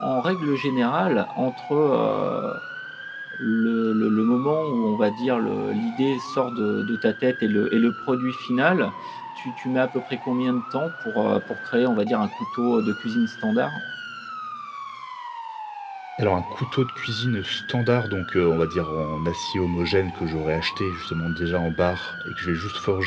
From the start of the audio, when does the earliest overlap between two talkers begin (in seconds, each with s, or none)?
none